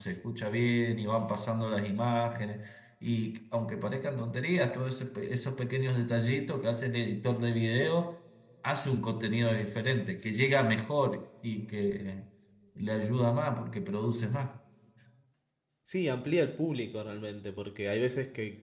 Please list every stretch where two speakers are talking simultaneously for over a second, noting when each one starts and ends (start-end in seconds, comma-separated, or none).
none